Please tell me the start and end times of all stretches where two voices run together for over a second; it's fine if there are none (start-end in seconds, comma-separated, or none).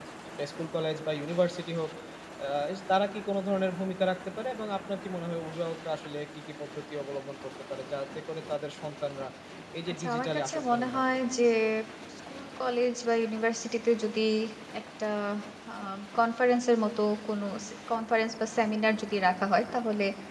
9.9-11.2